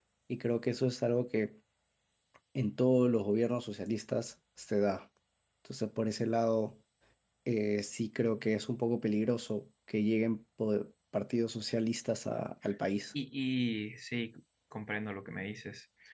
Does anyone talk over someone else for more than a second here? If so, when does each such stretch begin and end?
none

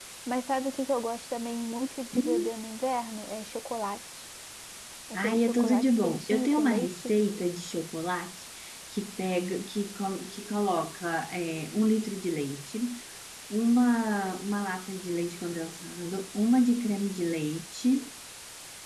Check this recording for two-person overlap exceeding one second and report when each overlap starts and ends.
5.2-7.1

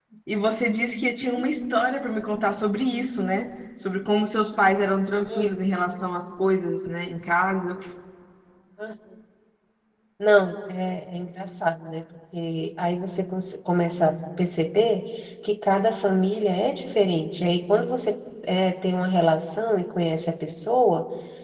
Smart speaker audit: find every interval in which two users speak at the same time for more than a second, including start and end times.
none

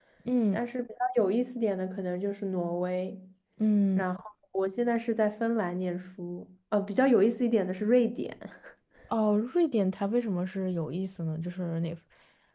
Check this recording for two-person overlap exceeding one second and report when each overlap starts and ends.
none

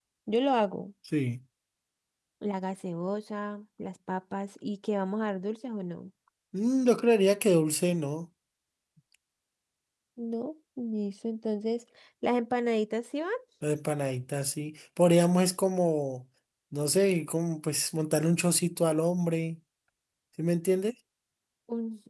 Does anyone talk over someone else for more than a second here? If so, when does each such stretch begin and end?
none

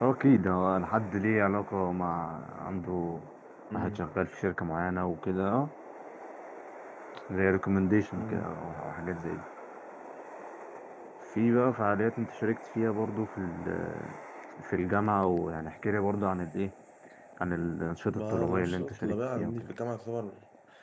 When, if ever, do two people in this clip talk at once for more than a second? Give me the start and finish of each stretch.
18.1-19.7

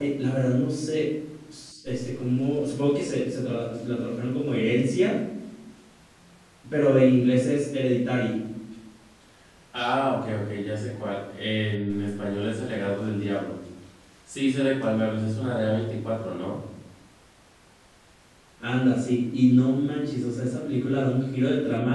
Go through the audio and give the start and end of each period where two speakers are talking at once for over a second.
none

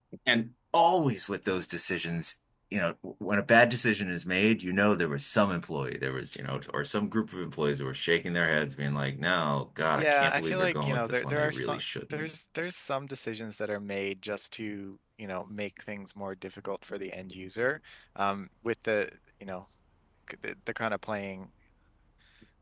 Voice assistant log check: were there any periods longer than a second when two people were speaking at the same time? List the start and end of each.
10.0-12.3

